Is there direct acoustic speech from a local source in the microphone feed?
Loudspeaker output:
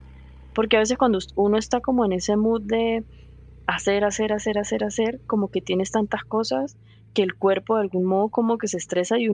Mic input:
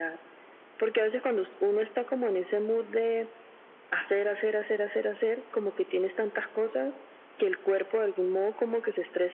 No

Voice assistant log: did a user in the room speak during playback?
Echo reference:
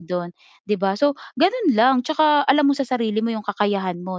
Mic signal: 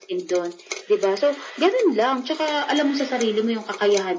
No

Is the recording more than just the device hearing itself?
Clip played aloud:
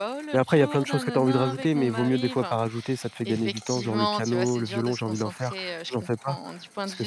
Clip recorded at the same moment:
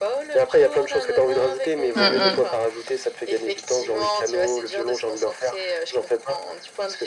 Yes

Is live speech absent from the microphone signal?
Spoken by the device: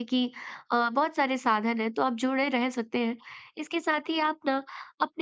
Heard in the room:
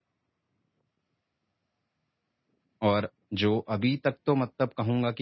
No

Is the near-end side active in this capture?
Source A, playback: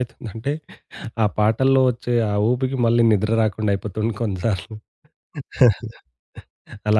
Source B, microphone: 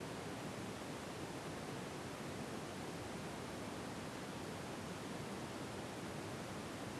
No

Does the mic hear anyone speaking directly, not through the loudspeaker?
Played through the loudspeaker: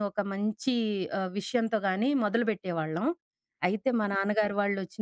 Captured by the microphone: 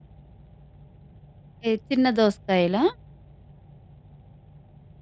Yes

